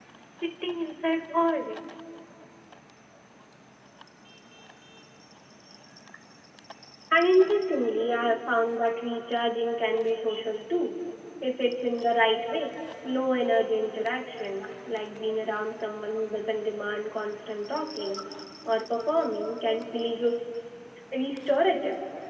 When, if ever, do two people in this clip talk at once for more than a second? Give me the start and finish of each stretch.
none

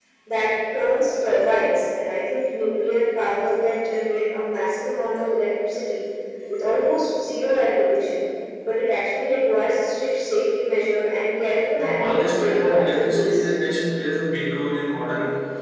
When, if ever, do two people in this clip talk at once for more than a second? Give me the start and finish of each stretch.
11.8-13.5

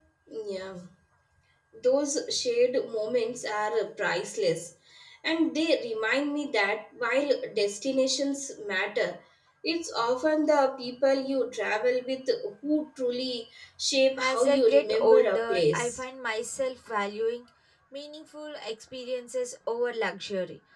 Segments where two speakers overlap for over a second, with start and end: 14.3-16.0

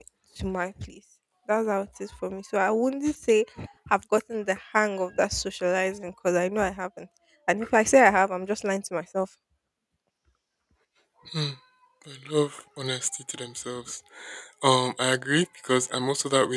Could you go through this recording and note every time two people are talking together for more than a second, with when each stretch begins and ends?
none

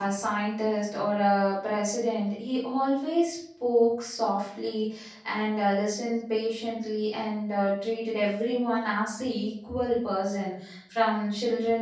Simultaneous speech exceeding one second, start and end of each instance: none

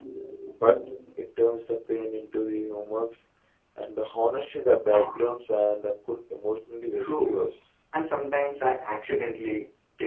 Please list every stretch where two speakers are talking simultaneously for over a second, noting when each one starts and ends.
none

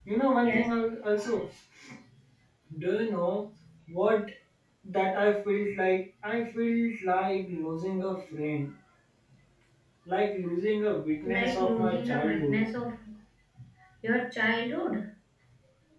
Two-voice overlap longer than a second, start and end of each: 11.2-12.6

